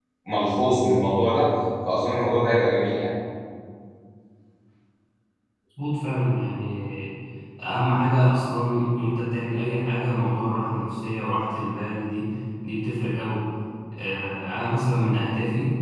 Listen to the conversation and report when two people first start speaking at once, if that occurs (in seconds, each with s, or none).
none